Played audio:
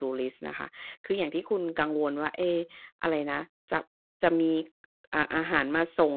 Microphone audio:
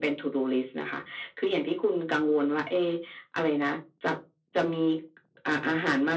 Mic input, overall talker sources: echo only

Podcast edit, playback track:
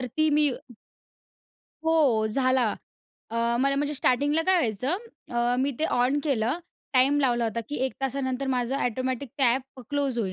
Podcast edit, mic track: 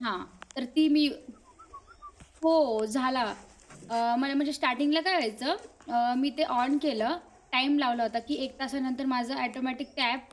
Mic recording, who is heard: echo only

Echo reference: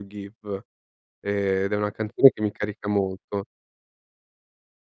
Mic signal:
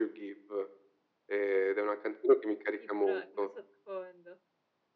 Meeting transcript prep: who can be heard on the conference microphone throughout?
both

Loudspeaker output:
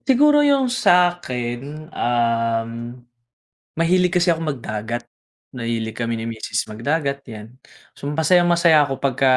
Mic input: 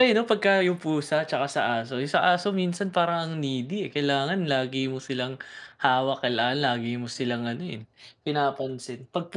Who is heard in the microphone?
user only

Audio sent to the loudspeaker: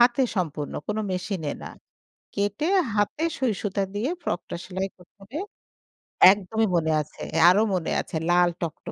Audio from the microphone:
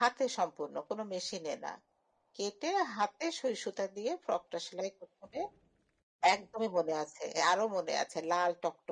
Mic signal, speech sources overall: echo only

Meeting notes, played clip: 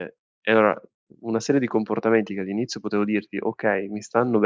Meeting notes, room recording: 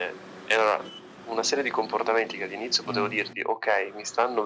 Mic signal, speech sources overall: both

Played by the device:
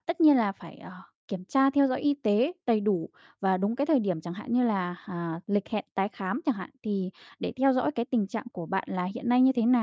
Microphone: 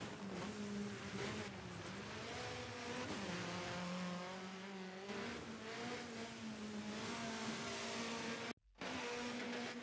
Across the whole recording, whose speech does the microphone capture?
neither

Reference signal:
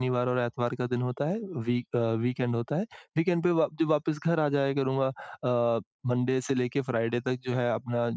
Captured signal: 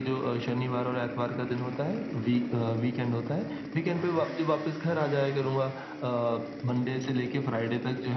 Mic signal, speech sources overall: echo only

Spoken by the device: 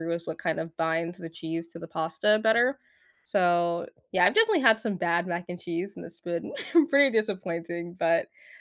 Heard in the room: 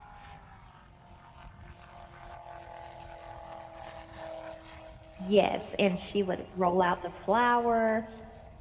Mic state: user only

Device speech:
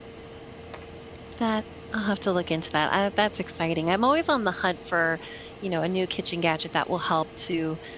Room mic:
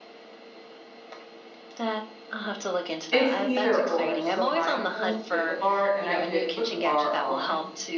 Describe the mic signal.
both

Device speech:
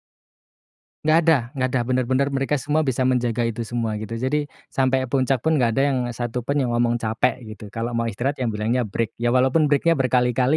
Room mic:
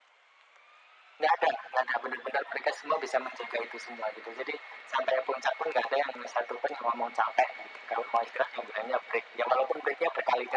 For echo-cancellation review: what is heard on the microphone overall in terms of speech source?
echo only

